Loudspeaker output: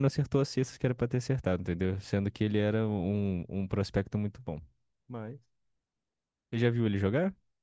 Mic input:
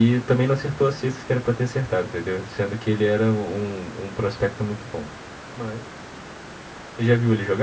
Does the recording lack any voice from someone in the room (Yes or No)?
Yes